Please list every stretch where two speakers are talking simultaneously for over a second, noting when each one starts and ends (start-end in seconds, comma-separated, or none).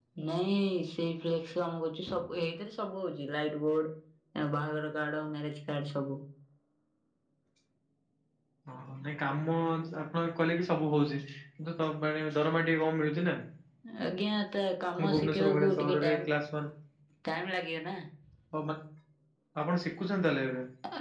15.0-16.2